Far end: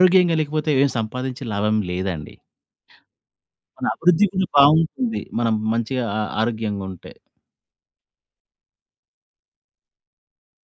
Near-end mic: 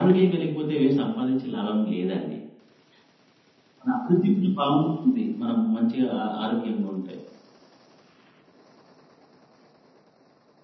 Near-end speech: none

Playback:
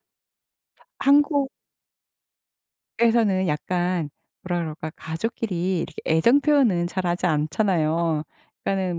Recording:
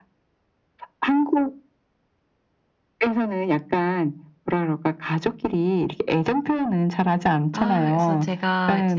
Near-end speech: present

